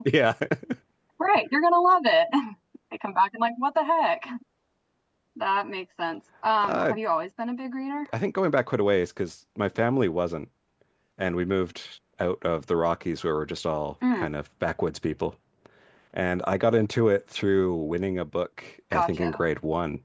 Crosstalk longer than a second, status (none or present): none